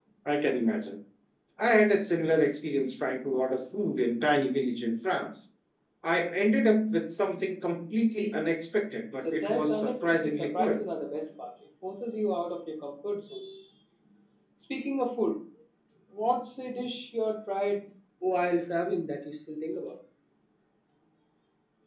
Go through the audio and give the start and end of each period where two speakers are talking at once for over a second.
9.2-10.8

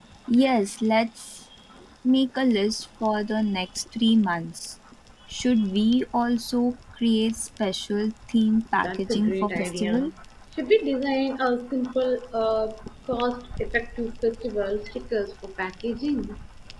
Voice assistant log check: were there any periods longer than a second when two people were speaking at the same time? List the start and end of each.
8.8-10.1

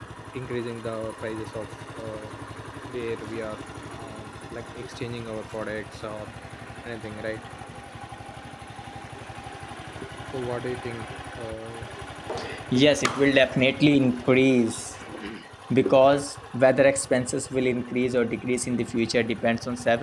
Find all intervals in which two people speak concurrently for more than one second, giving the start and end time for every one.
none

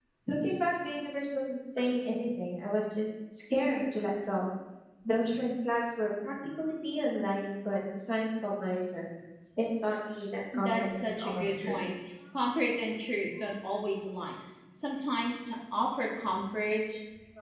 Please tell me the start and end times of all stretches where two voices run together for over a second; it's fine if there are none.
10.5-11.8

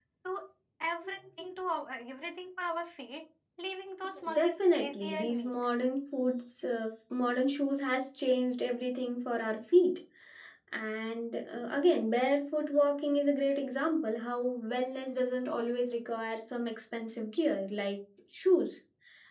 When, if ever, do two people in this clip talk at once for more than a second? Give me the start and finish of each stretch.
4.3-5.5

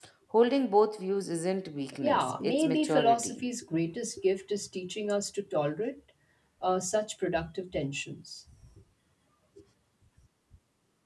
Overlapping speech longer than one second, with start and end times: 2.0-3.4

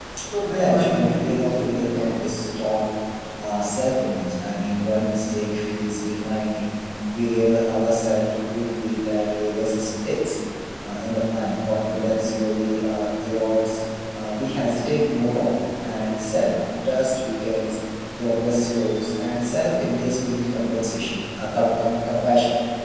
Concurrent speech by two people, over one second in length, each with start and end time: 0.5-2.2

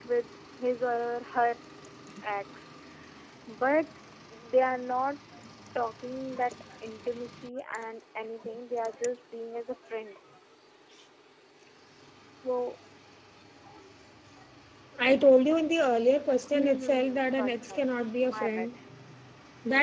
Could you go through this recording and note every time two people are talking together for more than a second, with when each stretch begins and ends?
16.5-17.9

